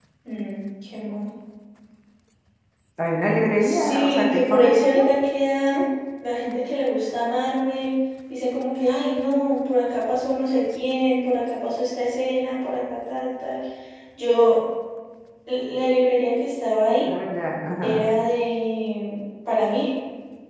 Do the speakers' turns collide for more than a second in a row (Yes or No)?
Yes